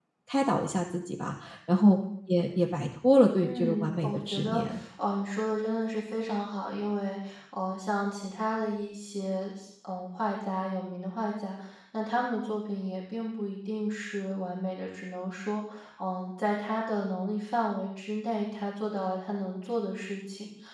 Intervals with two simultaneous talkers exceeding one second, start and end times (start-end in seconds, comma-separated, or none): 3.4-4.8